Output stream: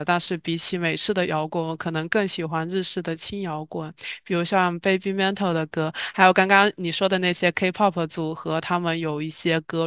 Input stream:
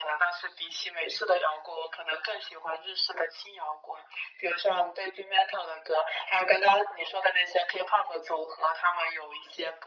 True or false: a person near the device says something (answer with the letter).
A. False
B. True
A